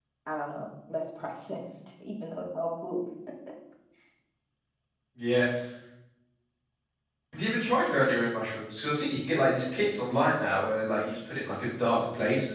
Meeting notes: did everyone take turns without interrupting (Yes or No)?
Yes